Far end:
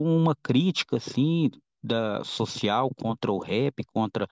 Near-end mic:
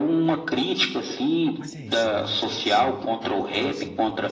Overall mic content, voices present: both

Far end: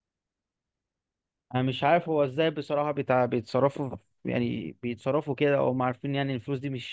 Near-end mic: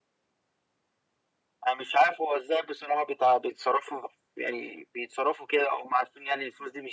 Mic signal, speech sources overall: echo only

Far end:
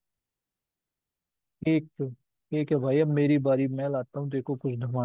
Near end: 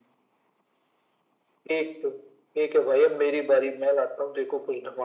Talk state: echo only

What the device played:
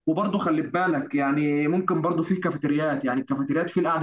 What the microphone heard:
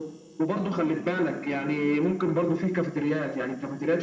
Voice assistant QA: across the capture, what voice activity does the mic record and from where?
both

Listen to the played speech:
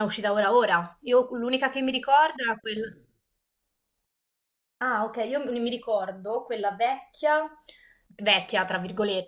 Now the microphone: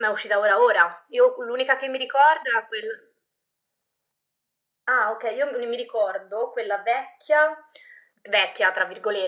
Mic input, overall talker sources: echo only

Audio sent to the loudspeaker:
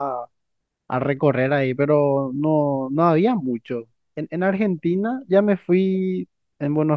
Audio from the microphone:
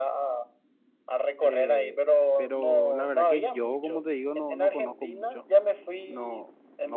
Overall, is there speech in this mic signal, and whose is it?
both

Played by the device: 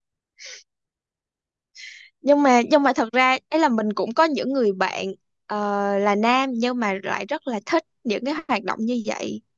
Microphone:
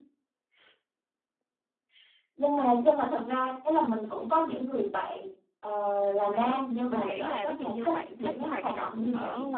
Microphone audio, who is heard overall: both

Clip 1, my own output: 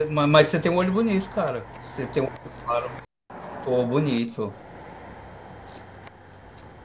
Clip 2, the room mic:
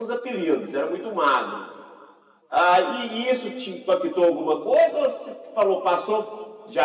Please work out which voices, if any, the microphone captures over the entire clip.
user only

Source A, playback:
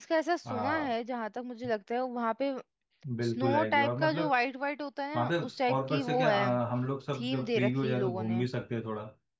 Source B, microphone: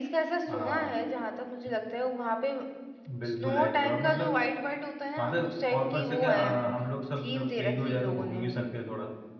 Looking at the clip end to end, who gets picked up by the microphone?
echo only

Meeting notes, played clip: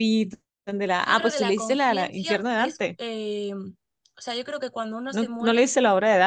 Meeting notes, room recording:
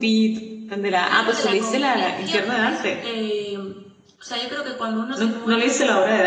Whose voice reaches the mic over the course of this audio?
echo only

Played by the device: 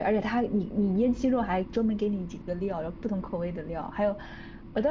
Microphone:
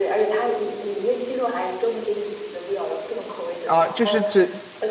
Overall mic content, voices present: both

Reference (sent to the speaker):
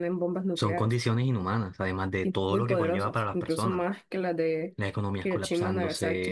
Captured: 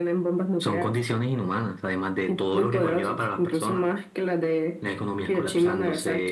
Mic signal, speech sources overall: echo only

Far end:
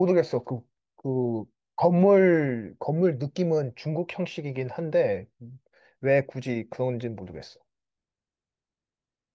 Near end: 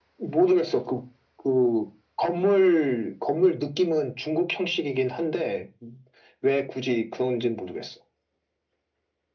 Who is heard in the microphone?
echo only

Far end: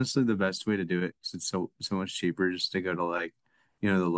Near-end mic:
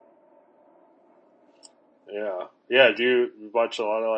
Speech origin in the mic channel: user only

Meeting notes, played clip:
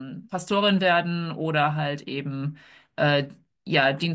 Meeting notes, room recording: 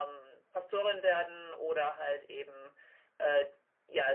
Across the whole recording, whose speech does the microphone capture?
echo only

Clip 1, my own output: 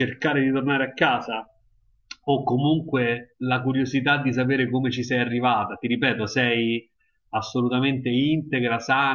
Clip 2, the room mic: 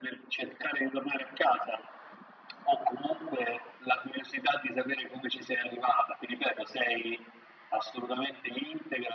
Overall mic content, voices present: echo only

